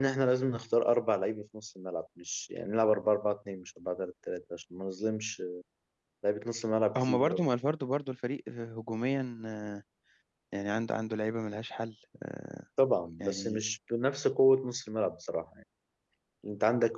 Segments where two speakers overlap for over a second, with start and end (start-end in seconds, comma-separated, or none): none